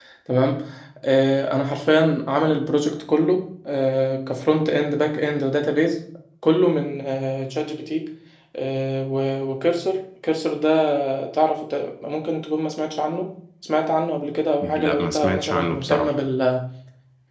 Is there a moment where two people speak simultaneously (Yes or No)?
Yes